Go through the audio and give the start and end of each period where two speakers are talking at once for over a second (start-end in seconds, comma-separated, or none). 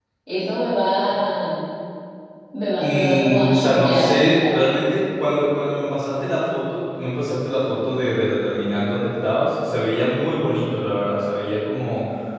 2.8-4.6